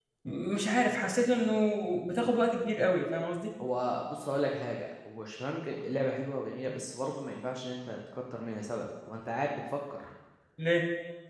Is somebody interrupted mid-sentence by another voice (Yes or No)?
No